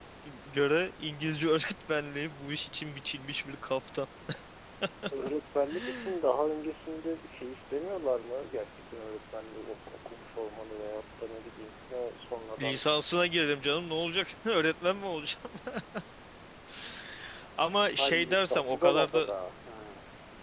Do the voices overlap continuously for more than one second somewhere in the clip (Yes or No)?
Yes